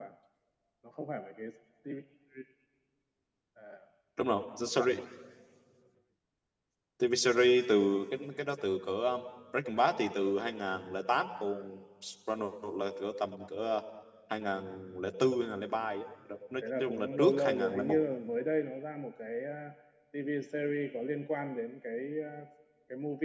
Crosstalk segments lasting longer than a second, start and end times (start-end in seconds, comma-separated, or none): 16.8-18.0